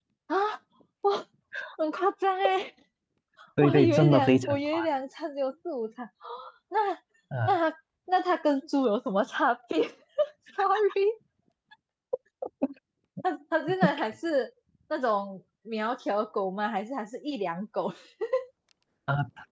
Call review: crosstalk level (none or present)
present